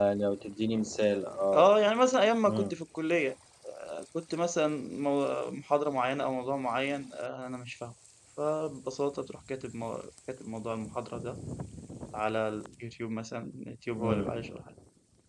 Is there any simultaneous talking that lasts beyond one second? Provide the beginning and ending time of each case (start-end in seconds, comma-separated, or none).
none